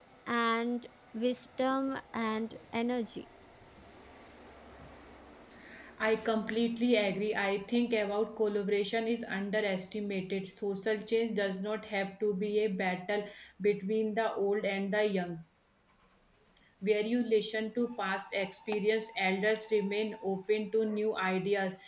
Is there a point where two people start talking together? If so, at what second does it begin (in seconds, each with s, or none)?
none